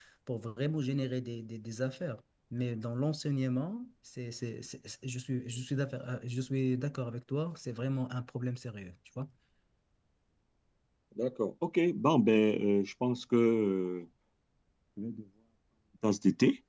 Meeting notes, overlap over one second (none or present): none